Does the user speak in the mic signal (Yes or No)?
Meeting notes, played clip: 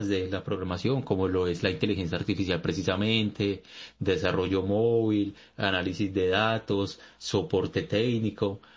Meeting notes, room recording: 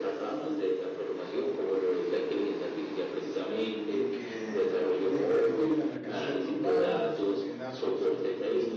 Yes